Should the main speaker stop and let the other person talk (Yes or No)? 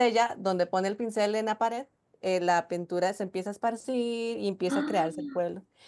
No